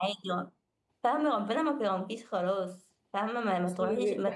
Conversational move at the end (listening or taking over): taking over